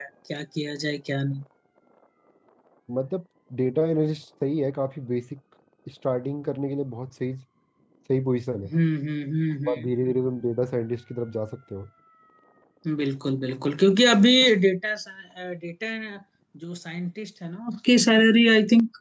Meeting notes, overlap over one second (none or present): none